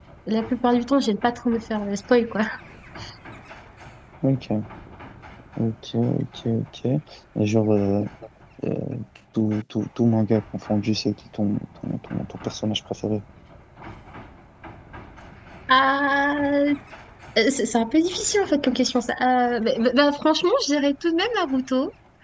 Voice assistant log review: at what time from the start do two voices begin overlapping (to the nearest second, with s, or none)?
none